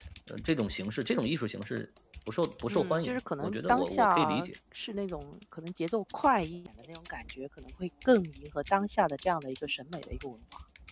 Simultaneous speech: Yes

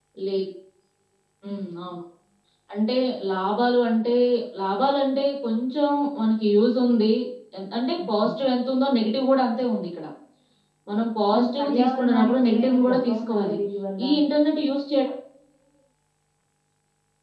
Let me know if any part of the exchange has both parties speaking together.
Yes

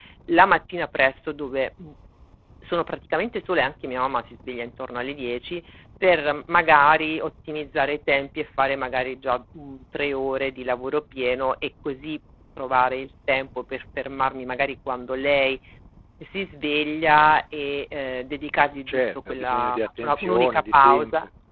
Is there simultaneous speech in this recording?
Yes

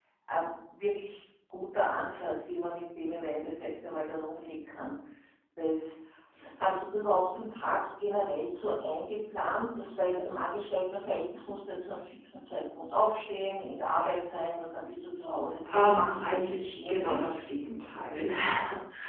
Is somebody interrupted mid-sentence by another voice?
Yes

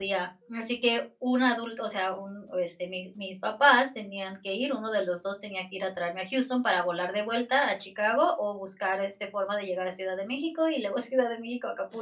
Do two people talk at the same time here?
No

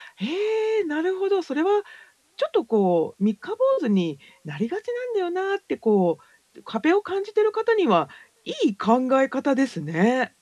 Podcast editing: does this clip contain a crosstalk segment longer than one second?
No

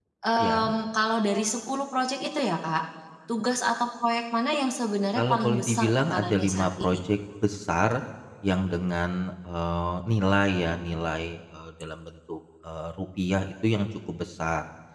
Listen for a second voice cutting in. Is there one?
Yes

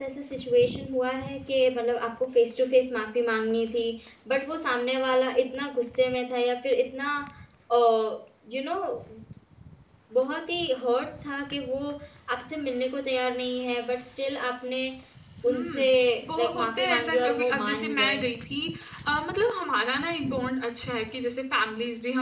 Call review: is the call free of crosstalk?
No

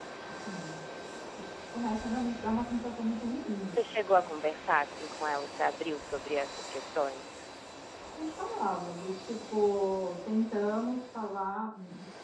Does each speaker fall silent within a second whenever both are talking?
Yes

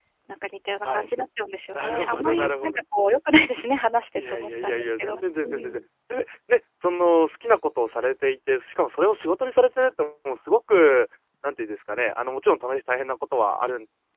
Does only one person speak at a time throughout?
No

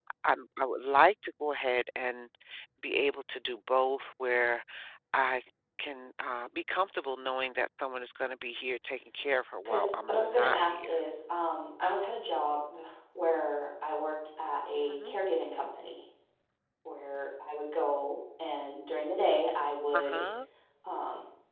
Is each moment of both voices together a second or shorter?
No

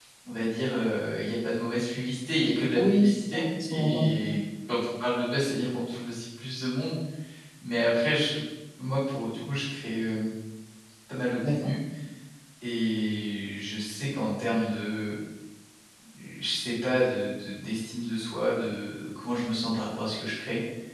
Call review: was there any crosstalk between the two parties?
Yes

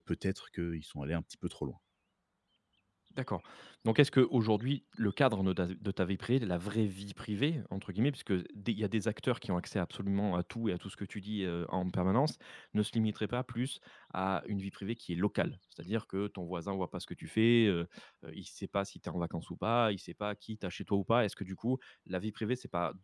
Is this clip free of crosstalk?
Yes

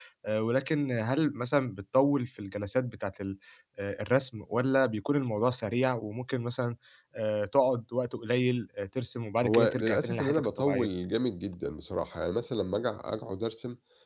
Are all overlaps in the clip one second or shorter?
No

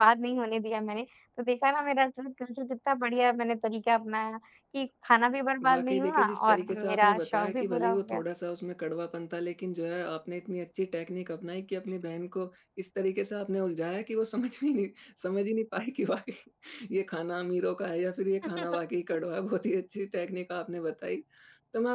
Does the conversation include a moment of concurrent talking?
Yes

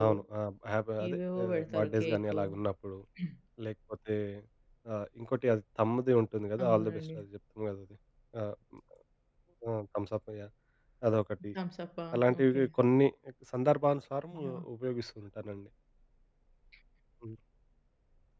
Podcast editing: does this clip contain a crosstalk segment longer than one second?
Yes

